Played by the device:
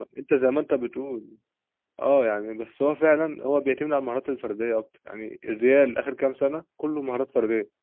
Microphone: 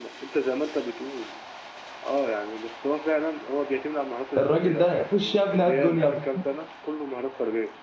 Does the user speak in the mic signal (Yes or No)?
Yes